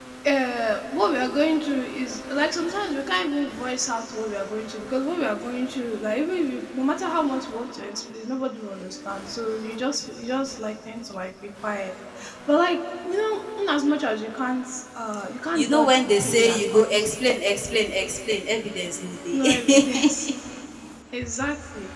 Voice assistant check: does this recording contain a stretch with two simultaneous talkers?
Yes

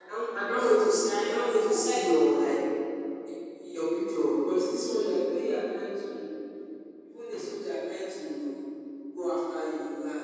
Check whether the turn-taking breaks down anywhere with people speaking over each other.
Yes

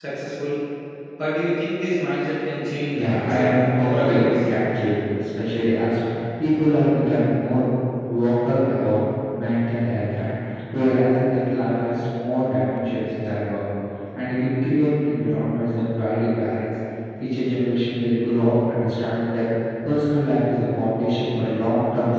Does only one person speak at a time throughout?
No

